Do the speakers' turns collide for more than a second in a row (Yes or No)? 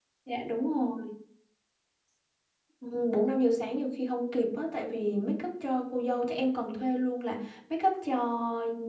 No